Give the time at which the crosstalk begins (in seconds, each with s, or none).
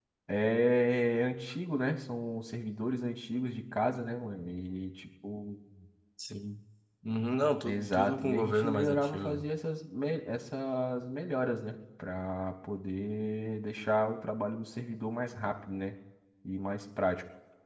7.6 s